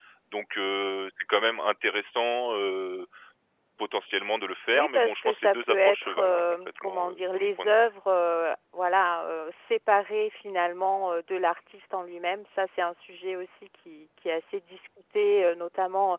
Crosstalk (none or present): present